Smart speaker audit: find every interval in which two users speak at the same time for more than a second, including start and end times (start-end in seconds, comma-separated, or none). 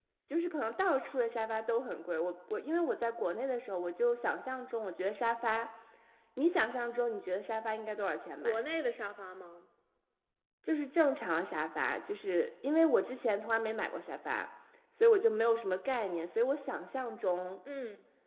none